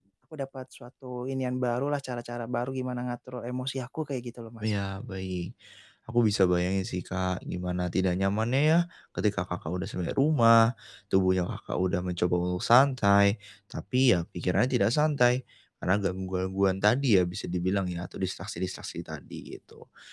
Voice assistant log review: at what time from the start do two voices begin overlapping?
none

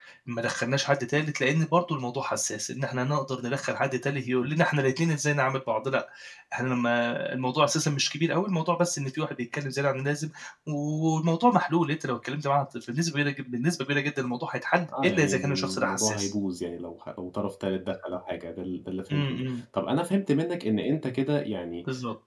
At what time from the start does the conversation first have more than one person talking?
15.0 s

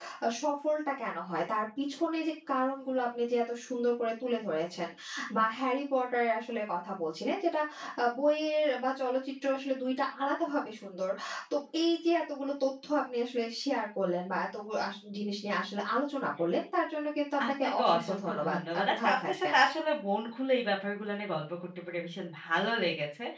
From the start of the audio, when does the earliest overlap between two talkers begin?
17.4 s

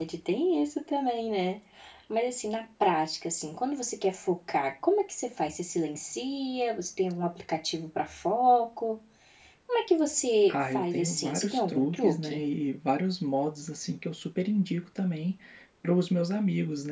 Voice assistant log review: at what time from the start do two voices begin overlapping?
10.5 s

